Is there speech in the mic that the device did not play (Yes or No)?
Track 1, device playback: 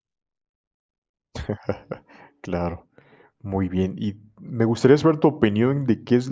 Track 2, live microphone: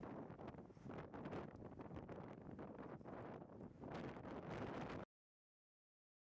No